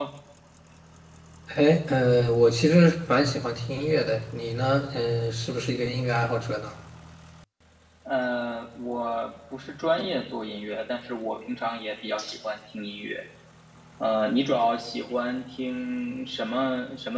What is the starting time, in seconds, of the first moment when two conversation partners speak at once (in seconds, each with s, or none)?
none